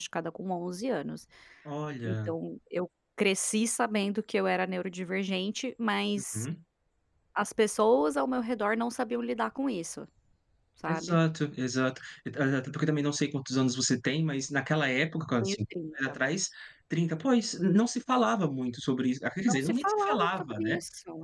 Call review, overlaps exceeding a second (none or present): present